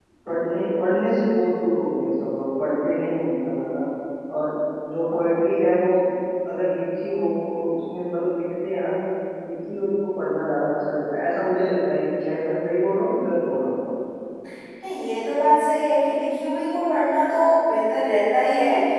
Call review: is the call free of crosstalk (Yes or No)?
Yes